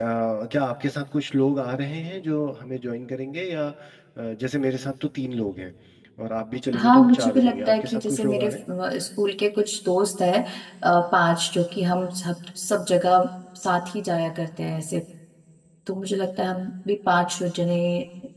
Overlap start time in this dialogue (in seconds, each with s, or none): 6.8 s